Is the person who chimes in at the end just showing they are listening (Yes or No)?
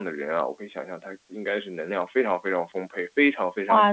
No